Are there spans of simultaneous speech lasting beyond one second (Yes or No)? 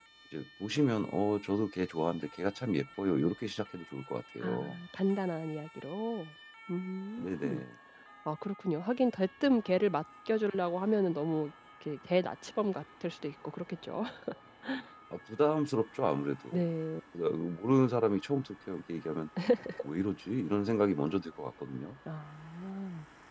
No